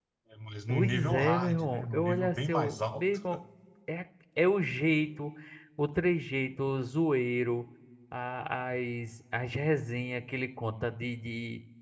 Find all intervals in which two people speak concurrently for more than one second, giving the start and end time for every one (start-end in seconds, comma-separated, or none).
0.7-3.0